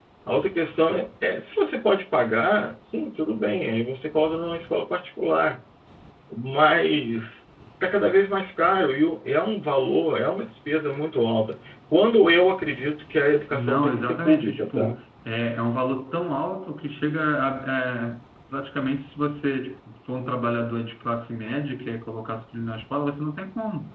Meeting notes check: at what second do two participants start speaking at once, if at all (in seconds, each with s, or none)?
13.5 s